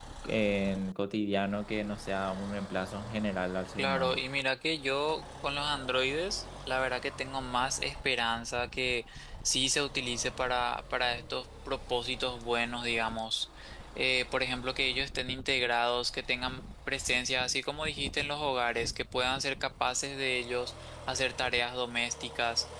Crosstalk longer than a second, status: none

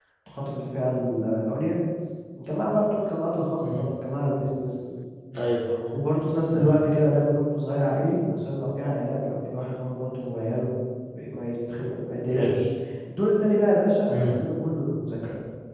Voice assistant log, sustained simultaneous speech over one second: none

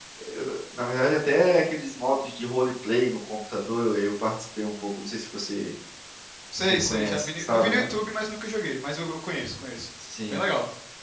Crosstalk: present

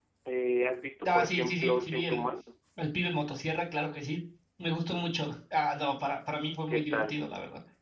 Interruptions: present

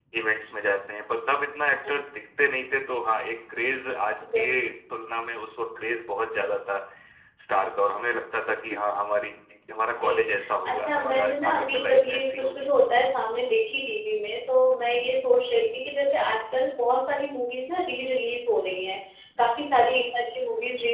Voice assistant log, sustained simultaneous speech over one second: present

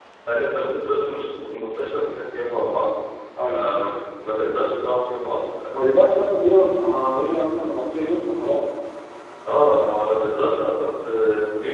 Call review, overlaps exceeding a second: none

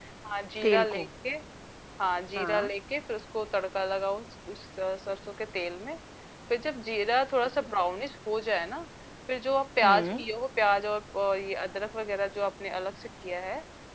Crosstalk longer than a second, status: none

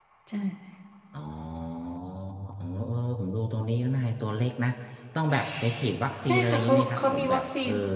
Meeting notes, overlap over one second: present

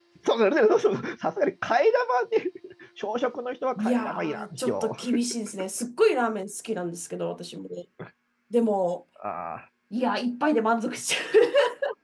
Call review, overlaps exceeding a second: present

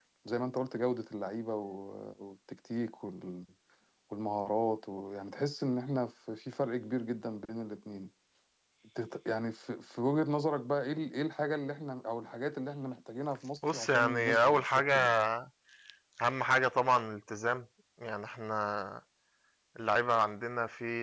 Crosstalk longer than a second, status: present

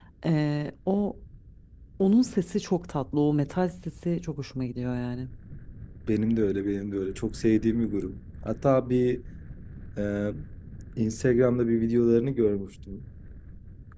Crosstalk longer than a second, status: none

